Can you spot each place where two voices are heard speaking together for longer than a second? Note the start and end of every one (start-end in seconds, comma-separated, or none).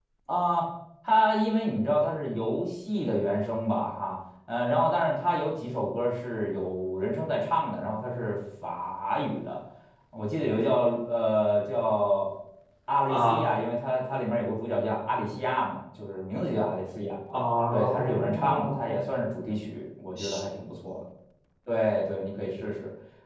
17.7-19.0